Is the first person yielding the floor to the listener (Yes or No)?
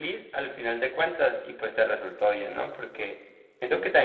No